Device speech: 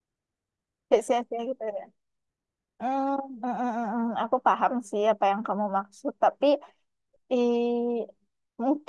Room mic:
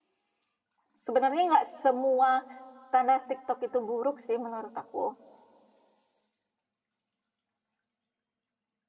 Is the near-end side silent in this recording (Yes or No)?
No